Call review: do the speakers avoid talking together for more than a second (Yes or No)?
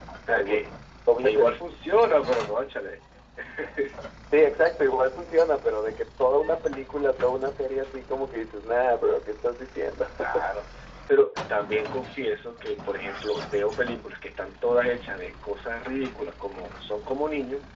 Yes